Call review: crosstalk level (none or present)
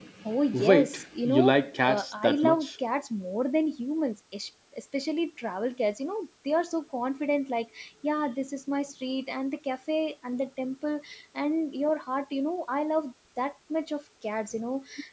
present